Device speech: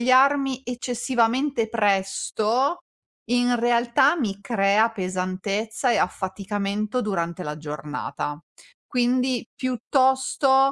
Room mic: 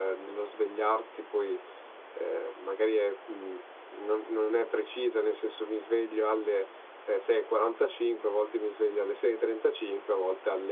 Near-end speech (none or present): present